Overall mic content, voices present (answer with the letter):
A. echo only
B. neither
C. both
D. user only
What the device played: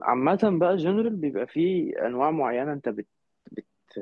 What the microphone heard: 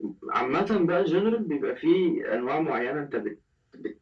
A